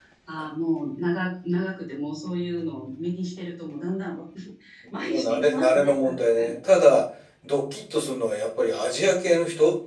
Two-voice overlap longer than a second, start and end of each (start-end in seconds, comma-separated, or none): 5.0-6.5